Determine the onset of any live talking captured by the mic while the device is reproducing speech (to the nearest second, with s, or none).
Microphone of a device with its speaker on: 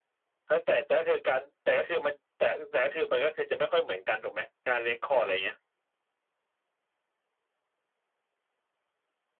none